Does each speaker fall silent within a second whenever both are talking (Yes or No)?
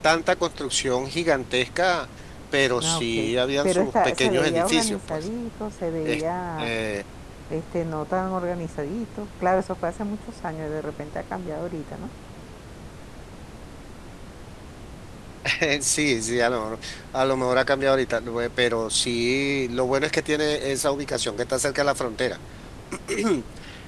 No